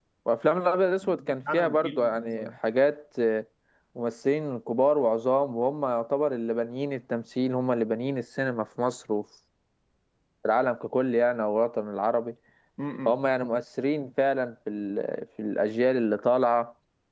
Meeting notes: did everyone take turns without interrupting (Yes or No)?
No